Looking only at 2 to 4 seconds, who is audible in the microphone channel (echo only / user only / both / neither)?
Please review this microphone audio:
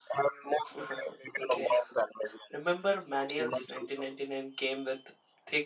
both